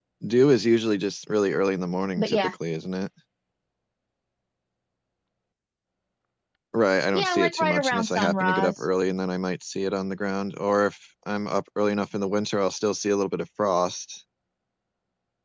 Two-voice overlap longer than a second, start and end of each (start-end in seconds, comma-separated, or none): 7.1-8.8